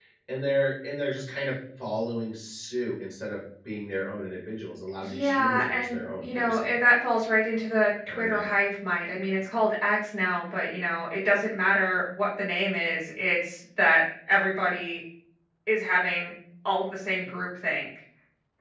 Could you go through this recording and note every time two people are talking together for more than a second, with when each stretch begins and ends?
5.0-6.7

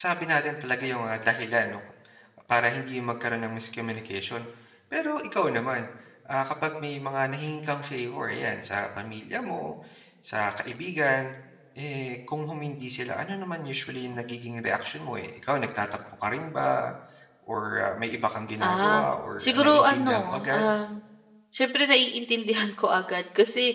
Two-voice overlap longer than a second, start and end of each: 19.4-20.7

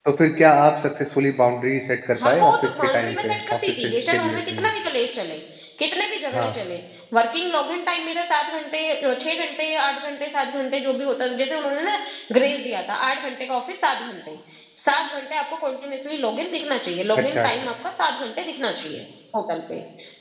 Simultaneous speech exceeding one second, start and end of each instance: 2.2-4.7

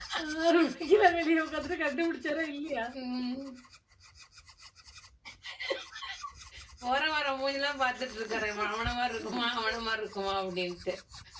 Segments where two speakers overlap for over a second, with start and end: none

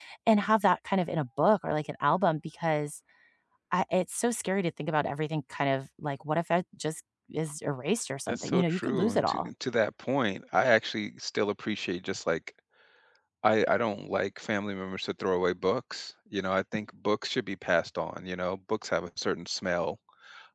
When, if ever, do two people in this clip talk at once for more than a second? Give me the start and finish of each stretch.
8.3-9.5

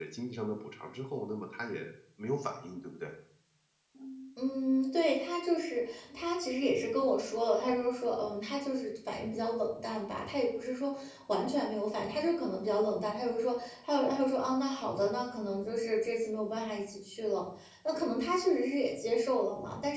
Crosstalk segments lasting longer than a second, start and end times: none

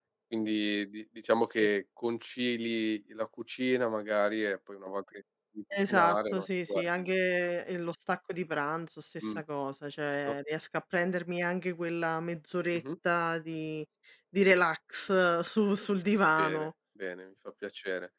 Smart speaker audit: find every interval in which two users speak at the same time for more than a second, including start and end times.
5.8-7.1

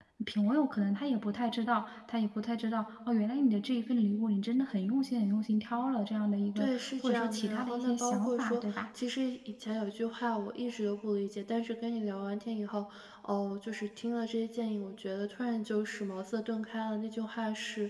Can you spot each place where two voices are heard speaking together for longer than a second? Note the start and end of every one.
6.6-8.8

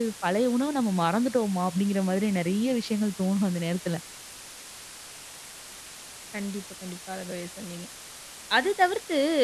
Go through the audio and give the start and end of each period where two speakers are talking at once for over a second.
none

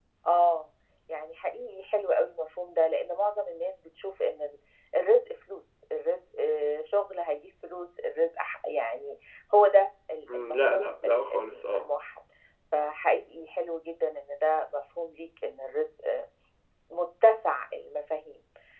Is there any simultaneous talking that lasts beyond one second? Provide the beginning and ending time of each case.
10.3-11.8

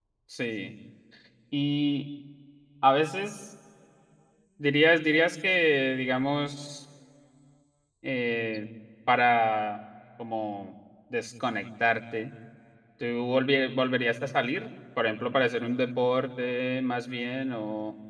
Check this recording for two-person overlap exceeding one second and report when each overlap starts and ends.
none

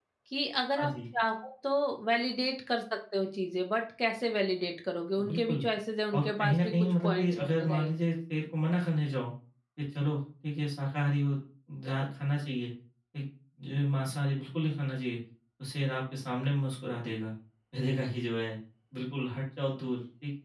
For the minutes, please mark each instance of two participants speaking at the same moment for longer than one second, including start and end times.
6.1-7.9

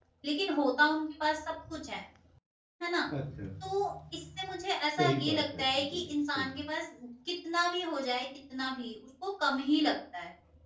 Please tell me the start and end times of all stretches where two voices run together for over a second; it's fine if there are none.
5.0-6.6

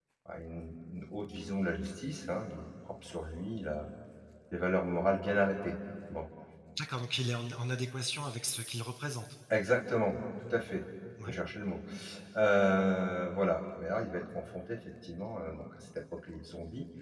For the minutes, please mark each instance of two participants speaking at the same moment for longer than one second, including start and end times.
none

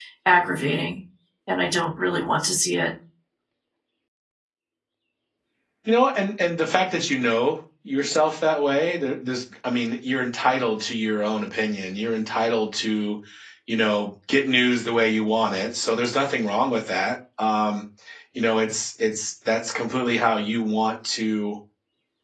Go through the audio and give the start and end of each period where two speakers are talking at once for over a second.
none

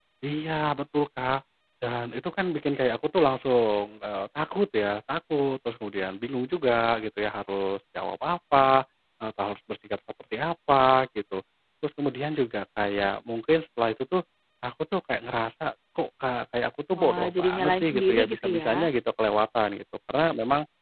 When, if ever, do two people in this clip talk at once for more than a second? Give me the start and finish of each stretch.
17.0-18.9

